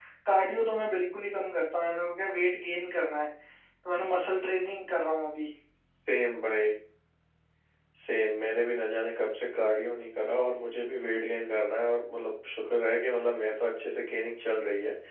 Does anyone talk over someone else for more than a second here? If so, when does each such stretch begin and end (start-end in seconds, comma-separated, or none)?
none